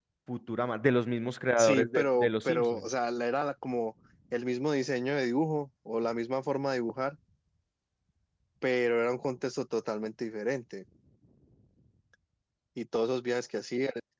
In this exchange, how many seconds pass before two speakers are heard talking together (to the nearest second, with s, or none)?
2 s